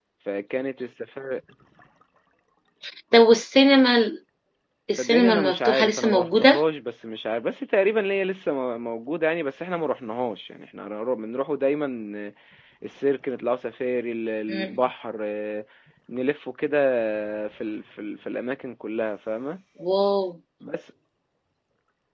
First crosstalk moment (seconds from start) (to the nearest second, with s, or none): 5 s